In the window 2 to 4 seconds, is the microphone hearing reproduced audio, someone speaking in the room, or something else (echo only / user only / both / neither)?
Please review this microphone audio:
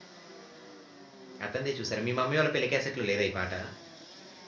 user only